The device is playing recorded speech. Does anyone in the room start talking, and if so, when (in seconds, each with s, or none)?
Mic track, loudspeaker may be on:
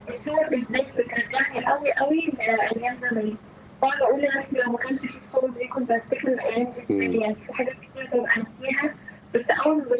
6.9 s